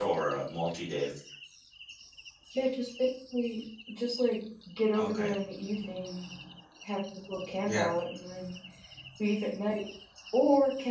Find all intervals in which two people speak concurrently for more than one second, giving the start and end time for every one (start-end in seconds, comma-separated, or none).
none